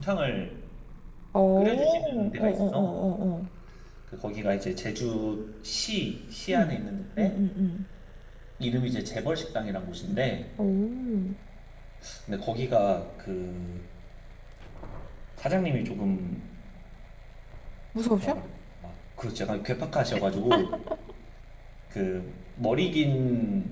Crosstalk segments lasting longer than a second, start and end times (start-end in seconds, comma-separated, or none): 1.6-3.0